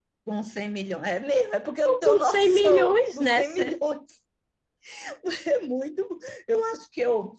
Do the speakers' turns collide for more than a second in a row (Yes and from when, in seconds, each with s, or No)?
Yes, from 1.8 s